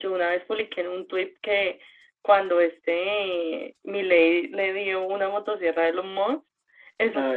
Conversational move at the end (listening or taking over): listening